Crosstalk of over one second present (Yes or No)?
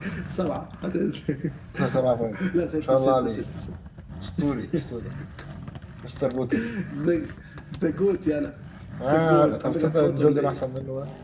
Yes